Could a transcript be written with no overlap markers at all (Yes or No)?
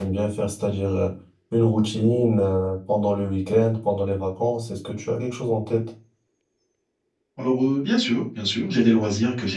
Yes